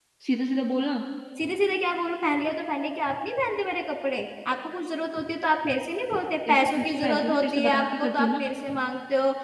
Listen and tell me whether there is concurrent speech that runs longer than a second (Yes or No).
Yes